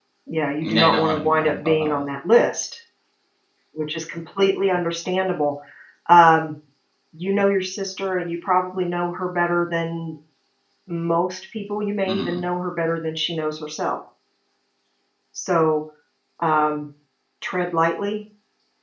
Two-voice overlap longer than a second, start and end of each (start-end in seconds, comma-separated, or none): 0.6-2.0